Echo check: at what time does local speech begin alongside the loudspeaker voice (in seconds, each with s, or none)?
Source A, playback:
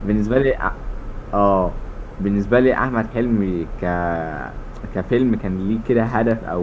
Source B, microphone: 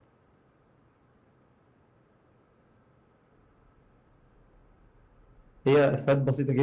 5.7 s